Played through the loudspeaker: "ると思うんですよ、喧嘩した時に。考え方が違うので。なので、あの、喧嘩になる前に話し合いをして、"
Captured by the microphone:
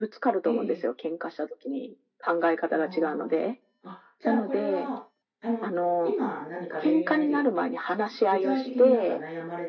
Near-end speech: present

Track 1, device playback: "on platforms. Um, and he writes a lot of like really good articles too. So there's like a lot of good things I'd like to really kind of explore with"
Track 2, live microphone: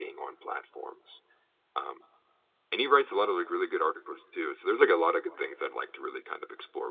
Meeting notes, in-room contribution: none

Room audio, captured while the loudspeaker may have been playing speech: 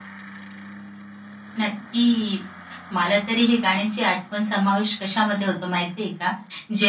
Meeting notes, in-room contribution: none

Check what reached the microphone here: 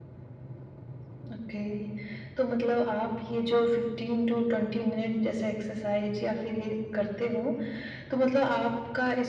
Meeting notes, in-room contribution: none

